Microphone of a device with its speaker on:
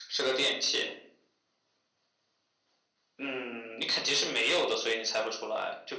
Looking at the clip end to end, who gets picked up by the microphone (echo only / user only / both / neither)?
echo only